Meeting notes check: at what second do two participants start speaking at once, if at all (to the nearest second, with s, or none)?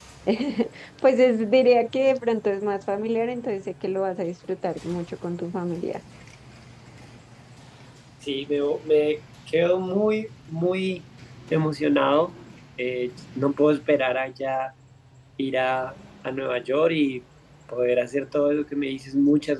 none